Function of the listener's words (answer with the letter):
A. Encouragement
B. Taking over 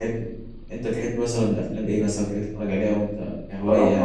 B